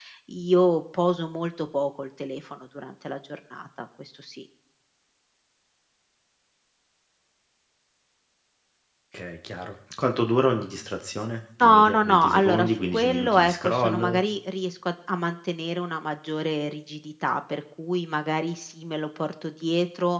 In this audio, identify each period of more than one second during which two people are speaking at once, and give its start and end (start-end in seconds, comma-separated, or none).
11.6-14.2